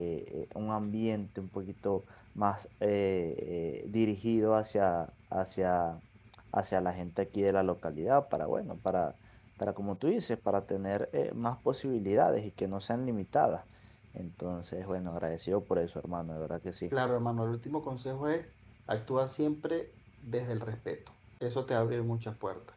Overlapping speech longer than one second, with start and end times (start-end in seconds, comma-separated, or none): none